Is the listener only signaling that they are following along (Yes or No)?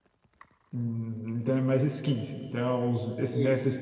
Yes